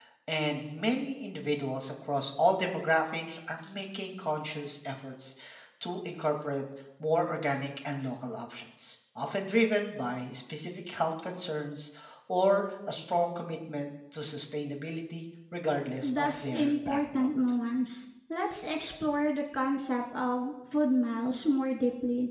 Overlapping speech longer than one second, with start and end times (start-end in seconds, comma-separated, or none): 16.0-17.3